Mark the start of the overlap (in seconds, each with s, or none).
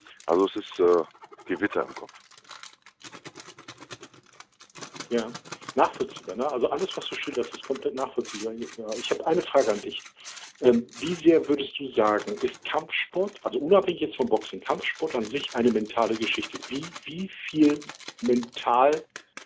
none